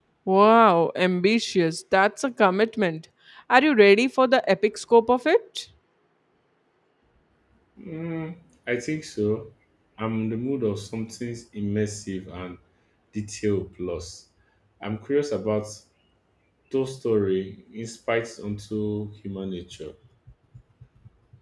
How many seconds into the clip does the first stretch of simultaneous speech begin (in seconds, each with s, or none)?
none